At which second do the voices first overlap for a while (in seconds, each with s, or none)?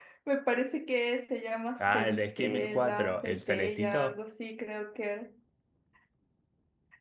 1.8 s